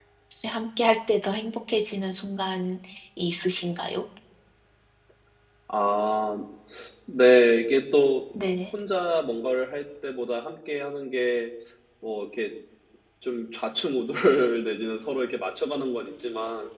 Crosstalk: none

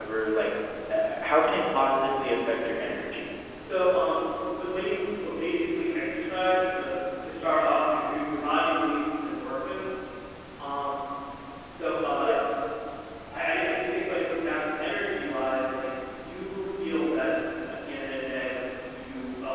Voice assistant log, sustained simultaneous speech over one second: none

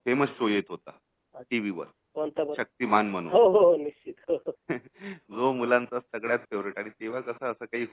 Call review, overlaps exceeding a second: none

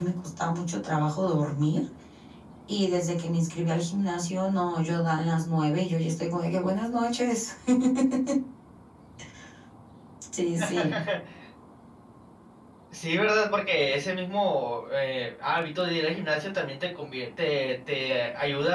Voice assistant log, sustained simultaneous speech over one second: none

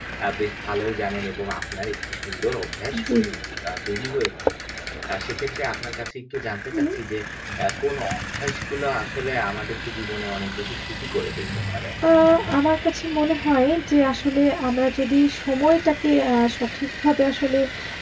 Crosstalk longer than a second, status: none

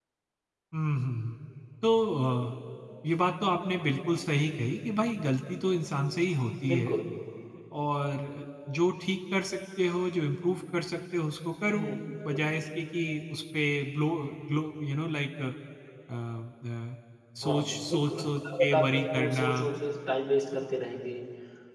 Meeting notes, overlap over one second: present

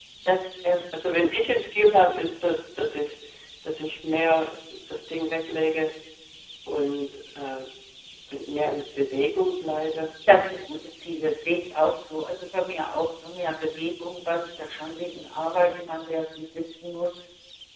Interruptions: none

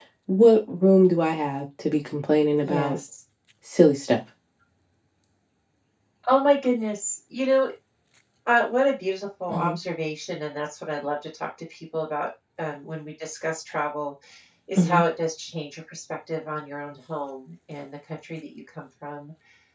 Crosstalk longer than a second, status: none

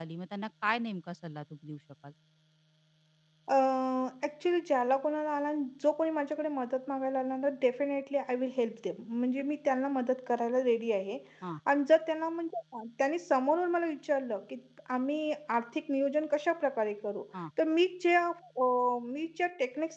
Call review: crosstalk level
none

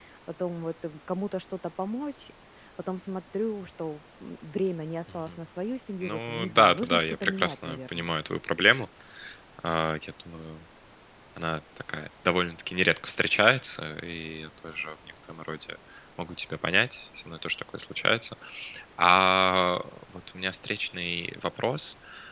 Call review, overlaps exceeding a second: present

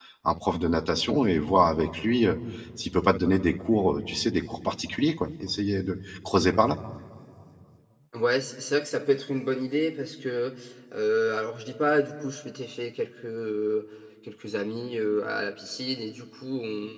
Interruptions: none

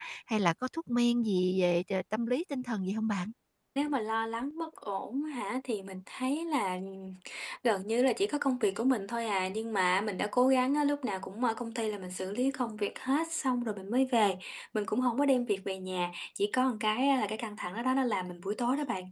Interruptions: none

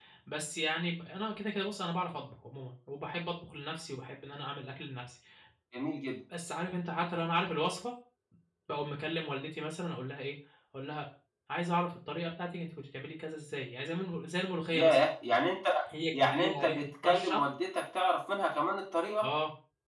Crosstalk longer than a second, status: present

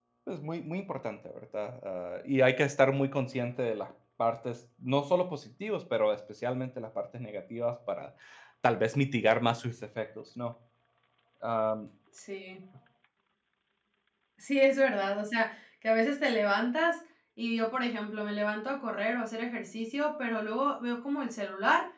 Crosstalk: none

